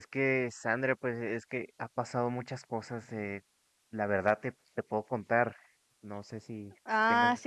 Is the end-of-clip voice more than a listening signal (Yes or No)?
Yes